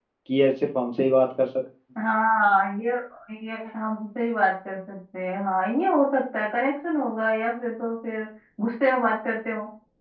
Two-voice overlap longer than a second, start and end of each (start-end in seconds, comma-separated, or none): none